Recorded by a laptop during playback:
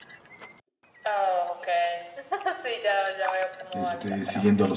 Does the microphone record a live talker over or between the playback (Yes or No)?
Yes